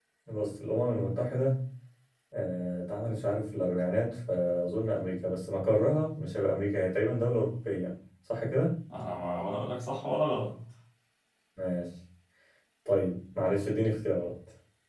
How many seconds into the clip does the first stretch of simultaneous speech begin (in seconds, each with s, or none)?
none